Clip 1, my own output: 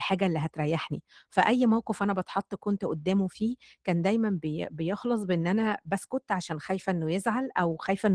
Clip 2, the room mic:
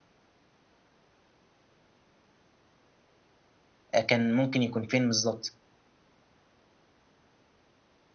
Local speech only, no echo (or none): آآ كان ممكن يكون فين بالضبط،